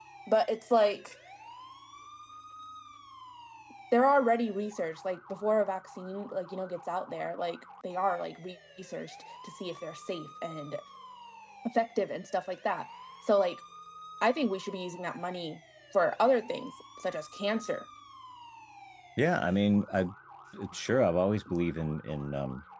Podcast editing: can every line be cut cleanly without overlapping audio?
Yes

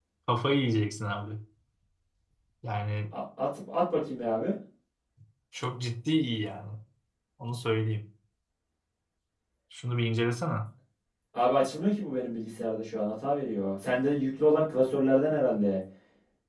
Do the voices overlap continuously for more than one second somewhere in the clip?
No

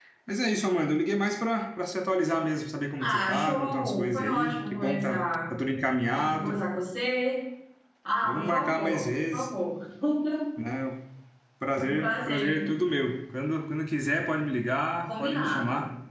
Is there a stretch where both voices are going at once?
Yes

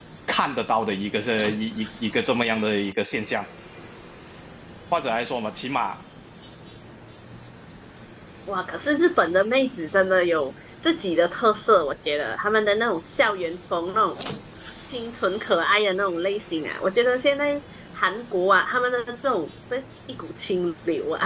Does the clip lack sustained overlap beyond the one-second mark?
Yes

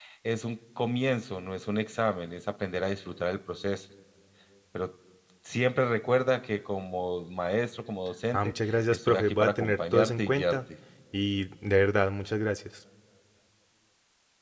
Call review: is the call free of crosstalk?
No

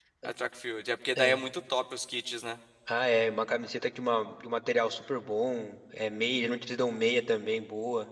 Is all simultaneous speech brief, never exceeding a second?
Yes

